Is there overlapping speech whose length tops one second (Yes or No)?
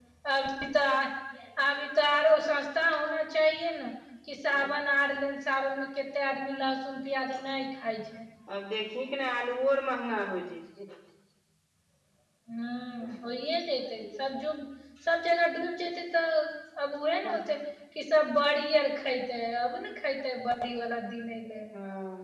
No